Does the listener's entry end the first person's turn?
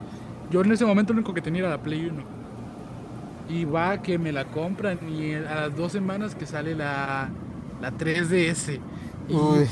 No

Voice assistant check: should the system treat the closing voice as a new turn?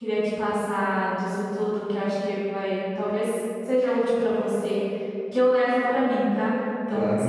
No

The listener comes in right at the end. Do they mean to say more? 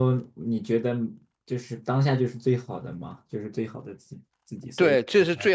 Yes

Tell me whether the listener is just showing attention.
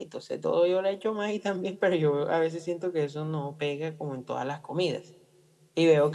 No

